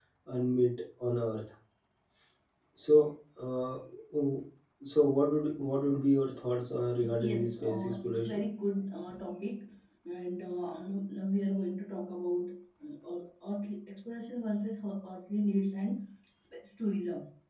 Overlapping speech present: Yes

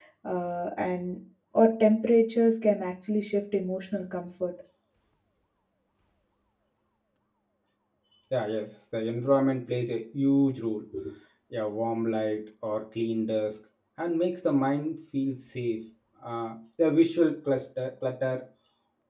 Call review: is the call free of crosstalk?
Yes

